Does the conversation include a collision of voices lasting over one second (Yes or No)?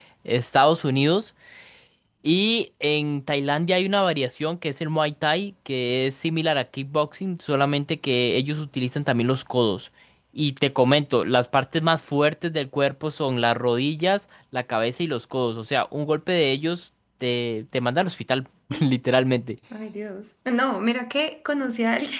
No